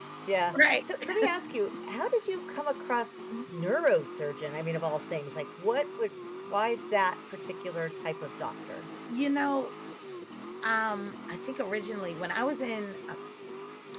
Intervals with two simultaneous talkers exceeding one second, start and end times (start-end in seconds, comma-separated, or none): none